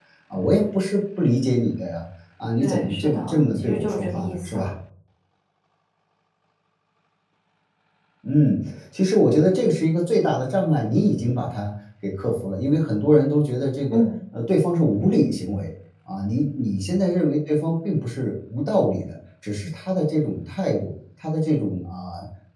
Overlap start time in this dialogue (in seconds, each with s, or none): 2.6 s